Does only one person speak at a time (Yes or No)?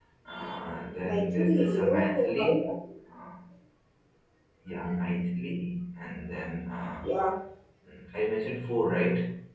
No